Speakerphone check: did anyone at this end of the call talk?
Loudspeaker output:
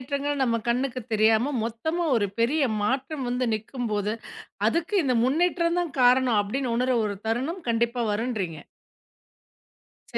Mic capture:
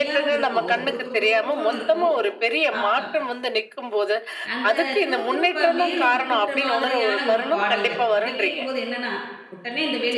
Yes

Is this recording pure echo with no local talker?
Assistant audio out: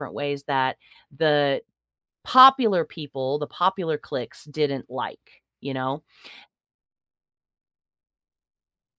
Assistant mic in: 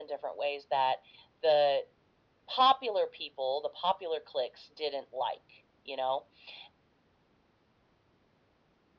Yes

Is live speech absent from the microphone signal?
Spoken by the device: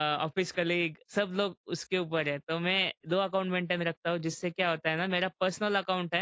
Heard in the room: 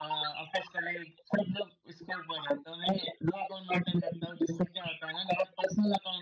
Yes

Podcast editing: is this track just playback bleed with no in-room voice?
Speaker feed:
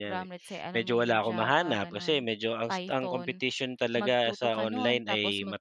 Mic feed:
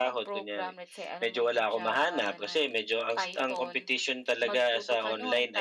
Yes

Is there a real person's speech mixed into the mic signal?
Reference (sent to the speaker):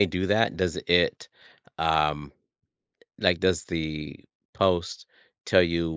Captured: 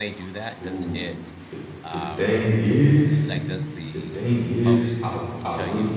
Yes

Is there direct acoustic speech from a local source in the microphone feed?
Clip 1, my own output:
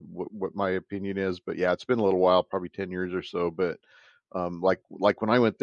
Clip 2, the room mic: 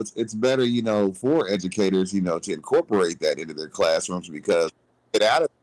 Yes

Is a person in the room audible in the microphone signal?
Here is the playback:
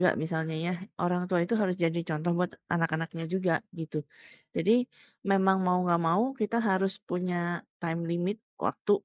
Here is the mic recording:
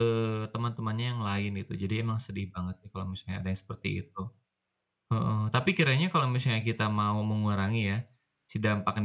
Yes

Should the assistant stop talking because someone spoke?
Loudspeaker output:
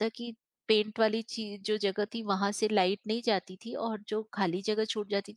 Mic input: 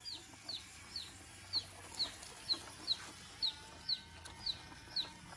No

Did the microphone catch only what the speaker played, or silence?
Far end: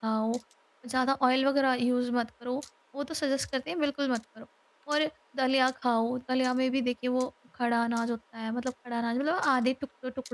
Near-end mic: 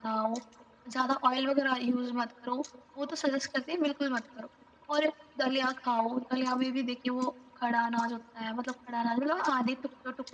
Yes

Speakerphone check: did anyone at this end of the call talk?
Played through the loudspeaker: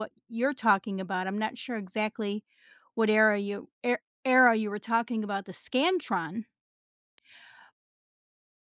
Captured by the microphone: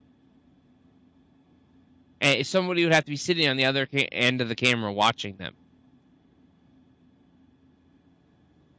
Yes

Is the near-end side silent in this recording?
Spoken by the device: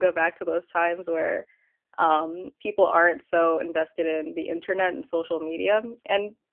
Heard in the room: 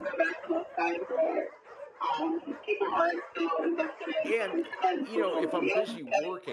No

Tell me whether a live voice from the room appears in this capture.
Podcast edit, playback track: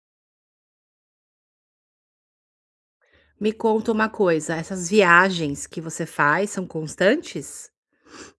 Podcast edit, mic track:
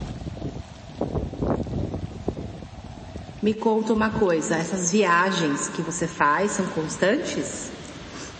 No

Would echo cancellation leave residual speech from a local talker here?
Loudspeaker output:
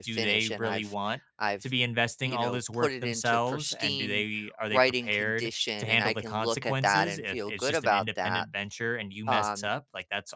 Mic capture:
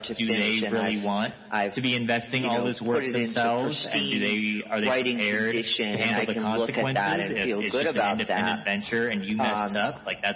No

